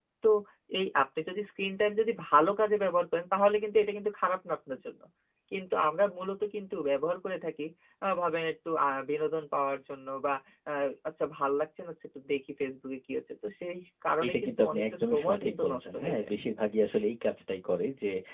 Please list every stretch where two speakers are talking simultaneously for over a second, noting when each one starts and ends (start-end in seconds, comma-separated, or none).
14.2-16.2